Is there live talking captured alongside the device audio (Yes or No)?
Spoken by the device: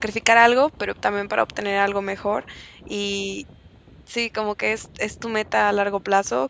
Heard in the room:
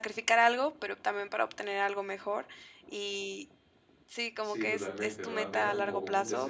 Yes